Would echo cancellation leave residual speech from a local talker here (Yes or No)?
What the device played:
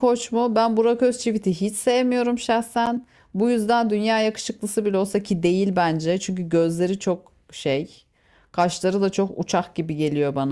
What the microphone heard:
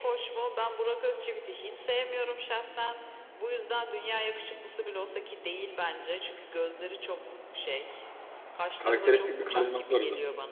Yes